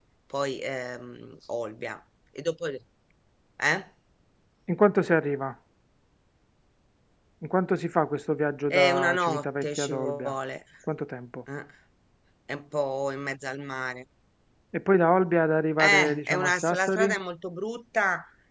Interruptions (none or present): present